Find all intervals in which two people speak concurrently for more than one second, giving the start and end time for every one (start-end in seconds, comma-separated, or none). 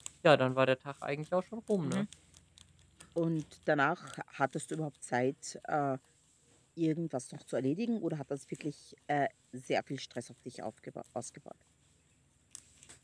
none